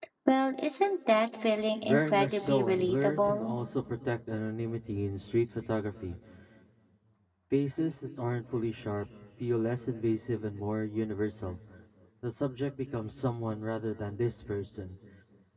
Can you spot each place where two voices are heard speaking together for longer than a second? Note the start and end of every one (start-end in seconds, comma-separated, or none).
1.8-3.5